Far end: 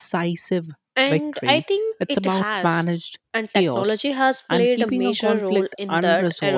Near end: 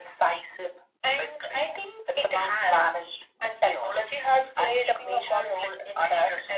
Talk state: echo only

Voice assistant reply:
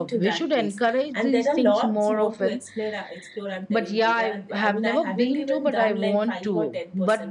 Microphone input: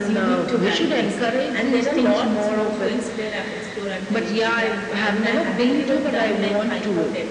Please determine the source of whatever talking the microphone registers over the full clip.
echo only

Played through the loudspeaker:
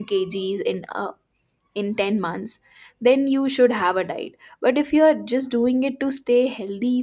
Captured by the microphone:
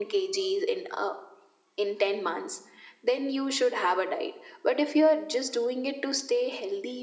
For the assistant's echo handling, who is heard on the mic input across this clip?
echo only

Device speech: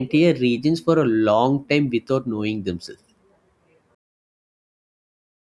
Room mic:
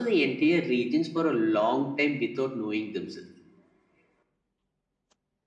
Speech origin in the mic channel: echo only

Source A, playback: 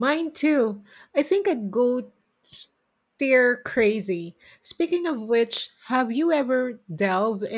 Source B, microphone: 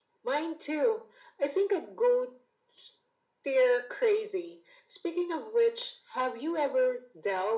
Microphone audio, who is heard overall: echo only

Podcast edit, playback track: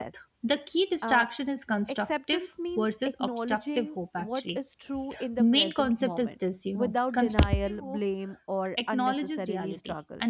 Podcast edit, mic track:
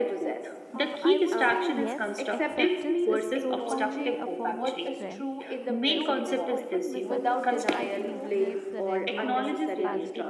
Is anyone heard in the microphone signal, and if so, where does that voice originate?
both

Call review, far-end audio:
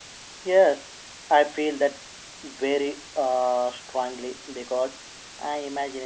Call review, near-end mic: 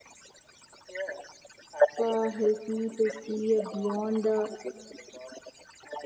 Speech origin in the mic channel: both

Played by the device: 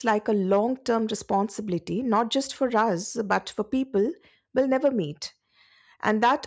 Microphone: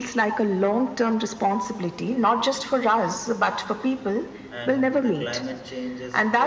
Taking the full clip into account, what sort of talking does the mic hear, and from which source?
both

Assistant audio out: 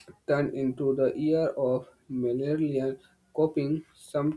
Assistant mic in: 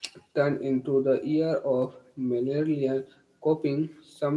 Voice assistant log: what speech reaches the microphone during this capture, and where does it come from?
echo only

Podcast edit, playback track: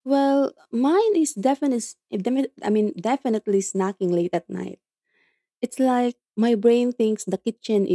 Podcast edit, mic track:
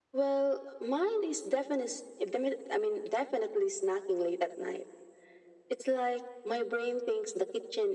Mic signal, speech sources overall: echo only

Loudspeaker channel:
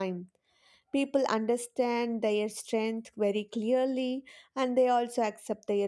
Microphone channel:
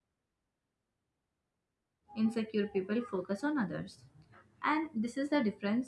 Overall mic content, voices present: user only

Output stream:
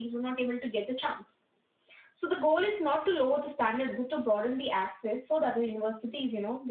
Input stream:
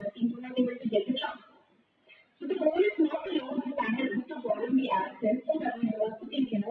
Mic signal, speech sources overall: echo only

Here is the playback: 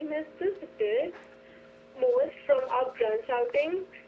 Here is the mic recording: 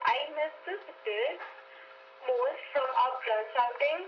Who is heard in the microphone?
echo only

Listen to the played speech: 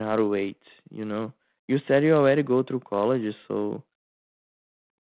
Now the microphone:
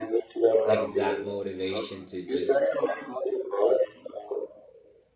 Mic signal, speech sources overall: both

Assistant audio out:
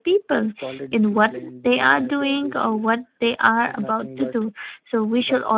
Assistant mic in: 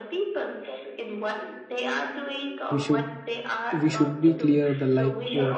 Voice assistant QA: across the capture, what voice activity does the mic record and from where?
both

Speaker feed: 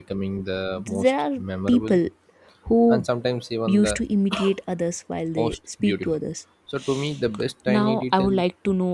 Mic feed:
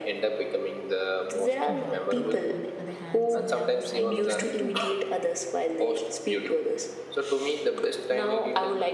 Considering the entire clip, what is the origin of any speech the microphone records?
both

